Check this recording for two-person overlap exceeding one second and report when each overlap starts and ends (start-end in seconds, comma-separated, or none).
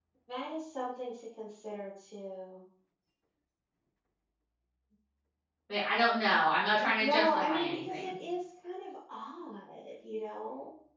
7.0-8.2